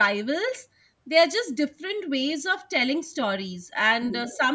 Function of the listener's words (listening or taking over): listening